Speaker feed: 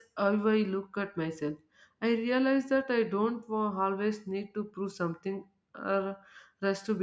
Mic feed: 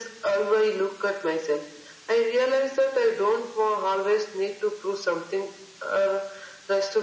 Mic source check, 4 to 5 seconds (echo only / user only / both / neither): echo only